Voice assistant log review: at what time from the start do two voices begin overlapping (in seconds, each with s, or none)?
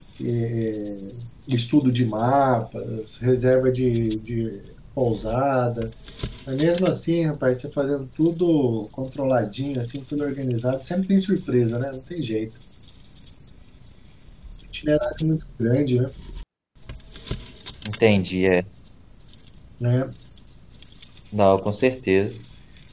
none